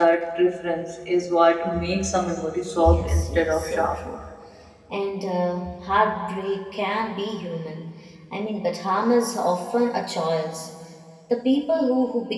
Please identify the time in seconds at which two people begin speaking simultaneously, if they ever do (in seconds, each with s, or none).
2.8 s